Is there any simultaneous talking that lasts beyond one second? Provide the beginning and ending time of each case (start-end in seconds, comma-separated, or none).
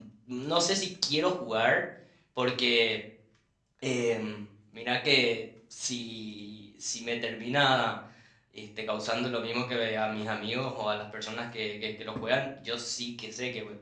none